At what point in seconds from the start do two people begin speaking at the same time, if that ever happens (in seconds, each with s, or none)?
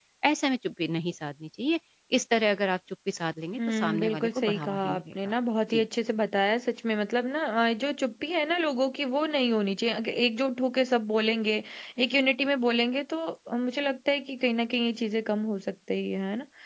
3.5 s